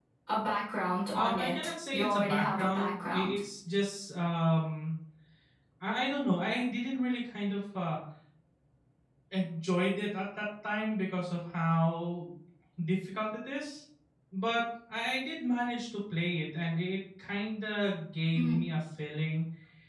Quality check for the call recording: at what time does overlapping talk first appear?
1.1 s

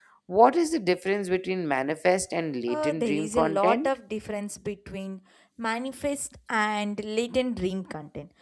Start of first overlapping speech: 2.7 s

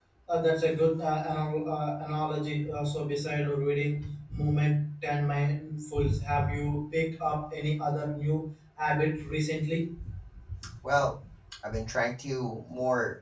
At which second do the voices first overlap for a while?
none

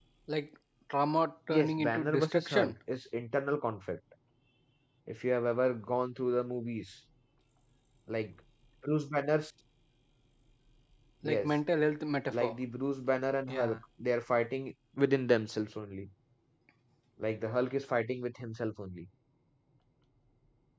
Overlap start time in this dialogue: 1.5 s

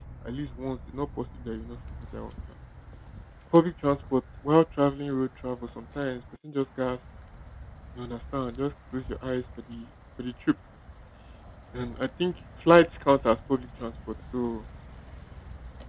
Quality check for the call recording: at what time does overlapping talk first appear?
none

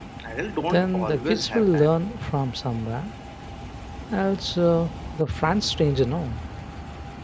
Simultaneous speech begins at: 0.7 s

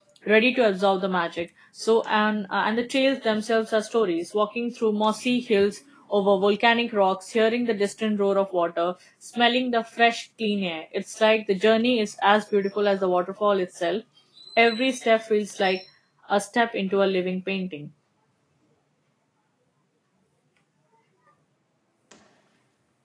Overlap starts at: none

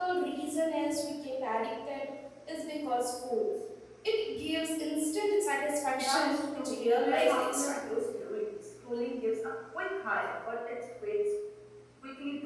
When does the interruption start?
6.0 s

